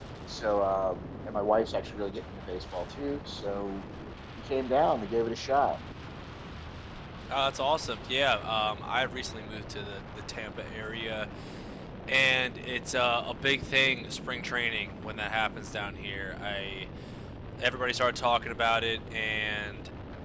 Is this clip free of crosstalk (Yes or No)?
Yes